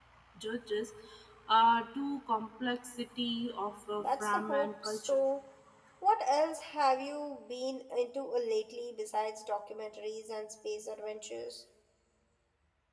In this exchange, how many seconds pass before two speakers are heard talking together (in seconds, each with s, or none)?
4.0 s